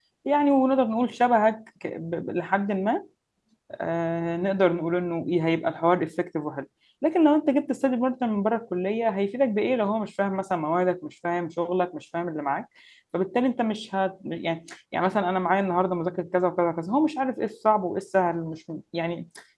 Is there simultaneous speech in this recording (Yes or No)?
No